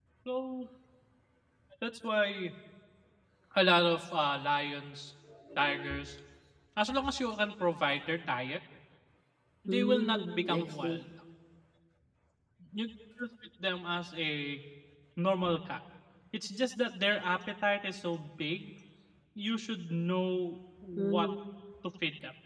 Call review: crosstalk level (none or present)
present